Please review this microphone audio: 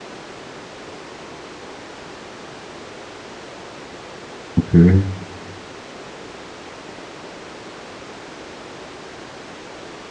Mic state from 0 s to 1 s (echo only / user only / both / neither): neither